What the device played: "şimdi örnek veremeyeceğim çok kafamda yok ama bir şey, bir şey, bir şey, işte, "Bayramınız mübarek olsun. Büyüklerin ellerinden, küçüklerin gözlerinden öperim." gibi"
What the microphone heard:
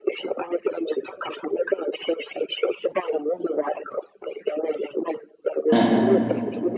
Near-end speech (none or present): present